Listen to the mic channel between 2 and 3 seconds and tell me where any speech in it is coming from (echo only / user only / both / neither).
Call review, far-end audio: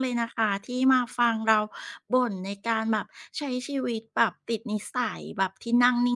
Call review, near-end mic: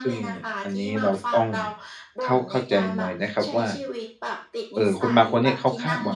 both